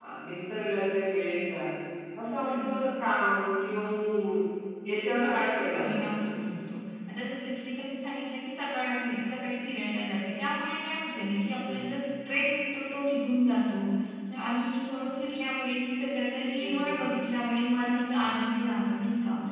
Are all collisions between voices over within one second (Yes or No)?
No